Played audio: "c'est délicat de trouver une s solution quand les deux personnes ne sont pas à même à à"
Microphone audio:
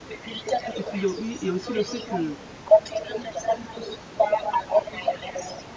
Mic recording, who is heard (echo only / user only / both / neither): both